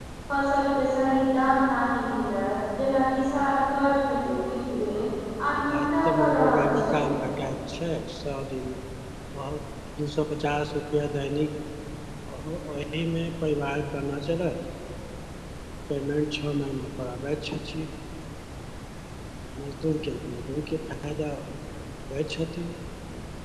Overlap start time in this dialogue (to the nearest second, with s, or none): 6 s